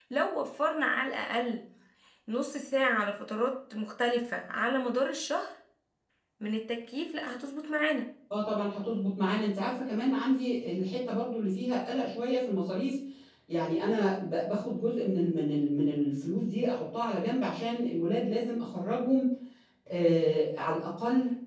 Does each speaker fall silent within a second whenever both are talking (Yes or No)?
Yes